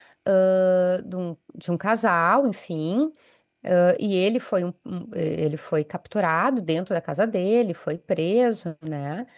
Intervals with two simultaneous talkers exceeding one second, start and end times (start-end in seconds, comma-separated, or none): none